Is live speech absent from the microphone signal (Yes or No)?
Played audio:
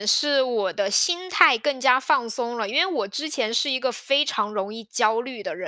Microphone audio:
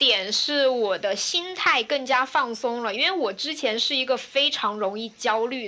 Yes